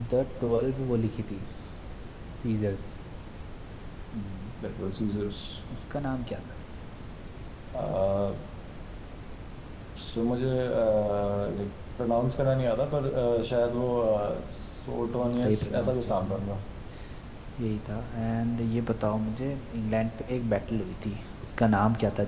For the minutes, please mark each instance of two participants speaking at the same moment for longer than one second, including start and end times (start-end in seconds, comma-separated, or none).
15.0-16.4